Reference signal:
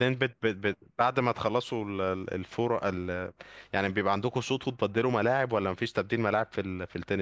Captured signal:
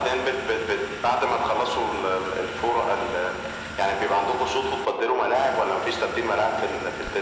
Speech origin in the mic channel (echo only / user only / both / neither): echo only